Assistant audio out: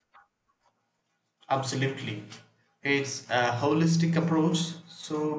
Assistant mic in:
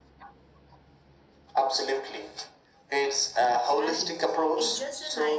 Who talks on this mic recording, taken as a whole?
both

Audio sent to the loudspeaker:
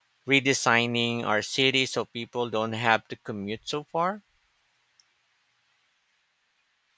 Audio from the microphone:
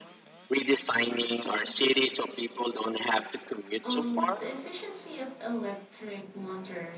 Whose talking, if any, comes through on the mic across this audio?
both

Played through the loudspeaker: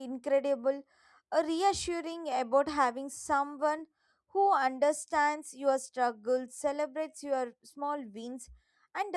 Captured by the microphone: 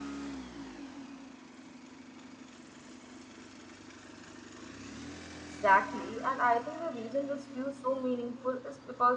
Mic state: user only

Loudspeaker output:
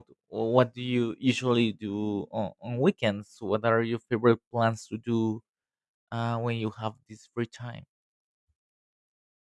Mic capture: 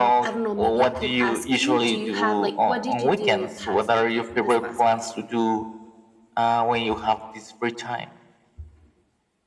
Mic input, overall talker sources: both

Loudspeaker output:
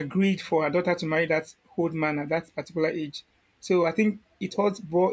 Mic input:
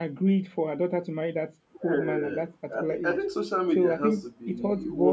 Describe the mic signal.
both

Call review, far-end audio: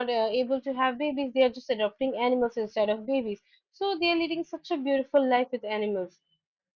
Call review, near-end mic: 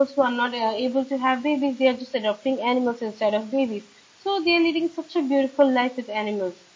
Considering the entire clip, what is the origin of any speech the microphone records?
echo only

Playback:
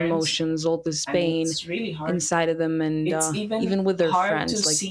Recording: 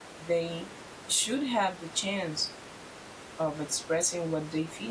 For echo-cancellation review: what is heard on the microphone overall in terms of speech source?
user only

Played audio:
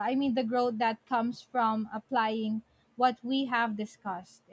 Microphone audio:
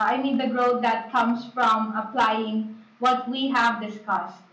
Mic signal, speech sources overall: echo only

